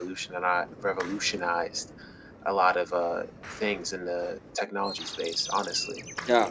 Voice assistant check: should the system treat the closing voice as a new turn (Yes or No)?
Yes